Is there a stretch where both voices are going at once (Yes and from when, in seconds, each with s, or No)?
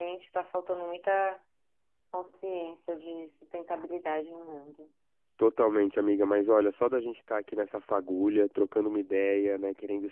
No